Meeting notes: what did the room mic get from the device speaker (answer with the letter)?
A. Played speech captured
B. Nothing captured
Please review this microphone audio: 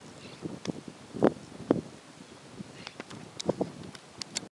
B